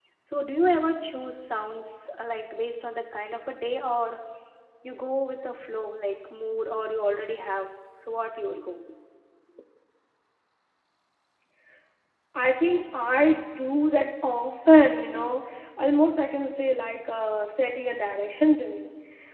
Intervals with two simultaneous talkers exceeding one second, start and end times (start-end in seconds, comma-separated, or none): none